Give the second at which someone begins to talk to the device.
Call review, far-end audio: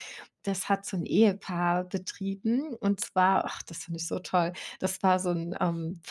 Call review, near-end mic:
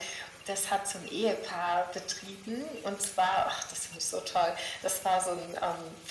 none

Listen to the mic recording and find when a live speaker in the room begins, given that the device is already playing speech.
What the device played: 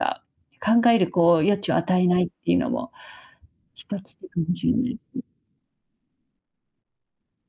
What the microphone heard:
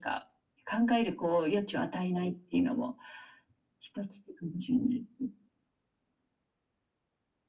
none

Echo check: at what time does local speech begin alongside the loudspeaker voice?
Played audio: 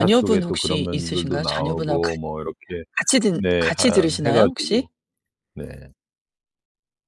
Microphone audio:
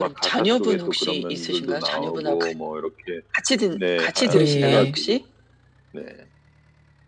4 s

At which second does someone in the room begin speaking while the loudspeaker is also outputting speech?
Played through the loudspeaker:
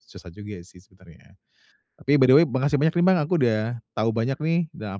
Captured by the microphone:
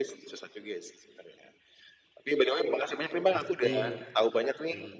3 s

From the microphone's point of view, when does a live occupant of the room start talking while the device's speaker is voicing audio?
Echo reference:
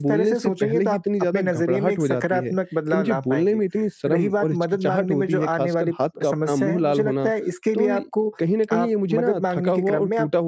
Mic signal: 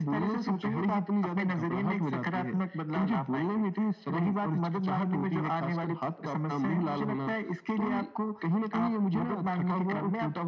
none

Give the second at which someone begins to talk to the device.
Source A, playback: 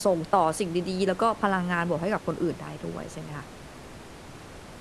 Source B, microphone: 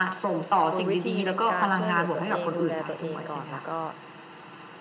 1 s

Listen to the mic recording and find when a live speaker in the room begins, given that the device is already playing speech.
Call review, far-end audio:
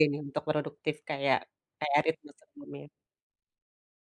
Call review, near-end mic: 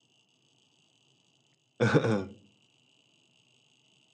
2 s

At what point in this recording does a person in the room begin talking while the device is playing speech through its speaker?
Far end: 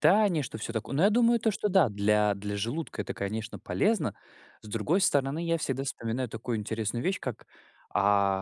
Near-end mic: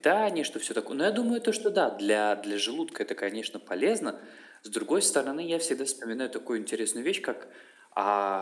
none

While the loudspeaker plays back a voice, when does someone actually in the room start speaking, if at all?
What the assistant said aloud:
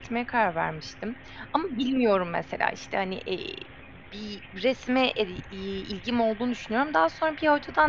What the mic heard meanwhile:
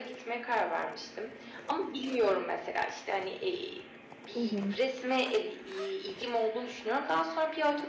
4 s

